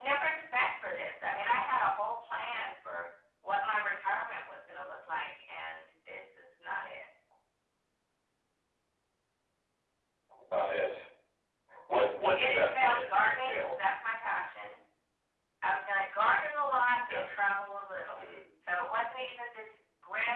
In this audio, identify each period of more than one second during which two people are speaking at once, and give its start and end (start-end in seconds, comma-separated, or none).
12.3-13.7